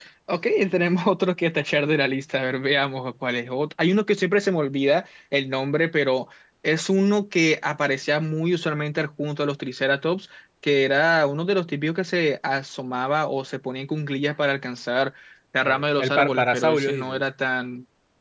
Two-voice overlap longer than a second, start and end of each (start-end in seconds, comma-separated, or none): 15.6-17.2